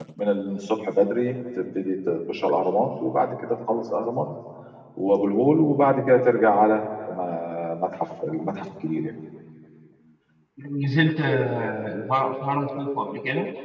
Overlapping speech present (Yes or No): No